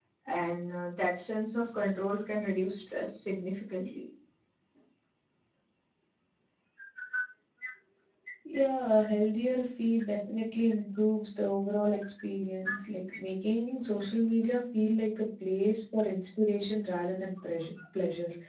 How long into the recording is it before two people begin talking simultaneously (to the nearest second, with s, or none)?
none